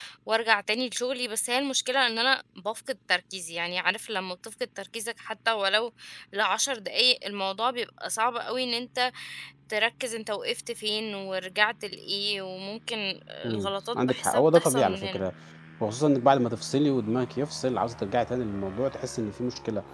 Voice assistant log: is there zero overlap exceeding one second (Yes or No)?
No